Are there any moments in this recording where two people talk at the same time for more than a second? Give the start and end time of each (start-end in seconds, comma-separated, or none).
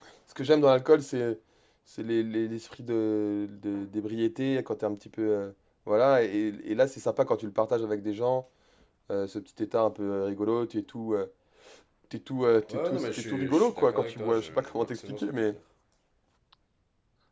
12.7-15.6